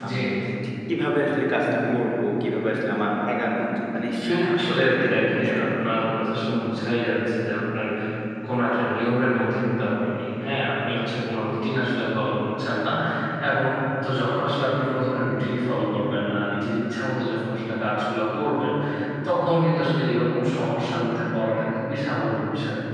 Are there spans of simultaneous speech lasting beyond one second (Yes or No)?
Yes